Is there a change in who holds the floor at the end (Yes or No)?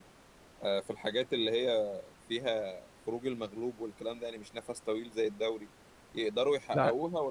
No